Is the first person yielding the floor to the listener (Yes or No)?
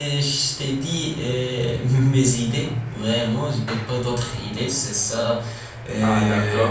Yes